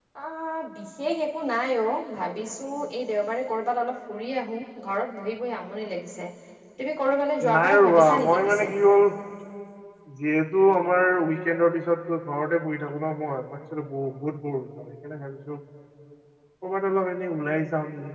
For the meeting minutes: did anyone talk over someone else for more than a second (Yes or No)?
Yes